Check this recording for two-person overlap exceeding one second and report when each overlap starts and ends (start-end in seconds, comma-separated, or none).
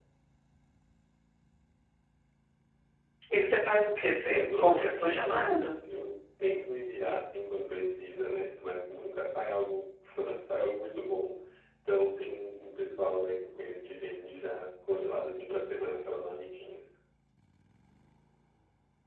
4.3-5.5